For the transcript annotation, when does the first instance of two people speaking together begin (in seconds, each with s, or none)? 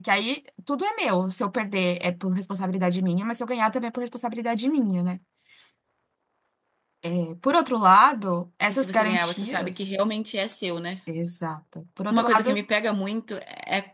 8.7 s